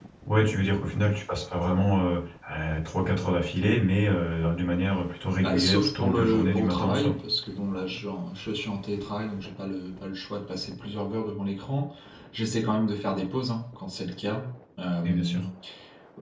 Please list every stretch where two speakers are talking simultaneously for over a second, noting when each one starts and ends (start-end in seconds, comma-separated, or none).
5.4-7.1